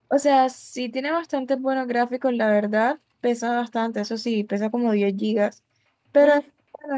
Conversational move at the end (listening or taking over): listening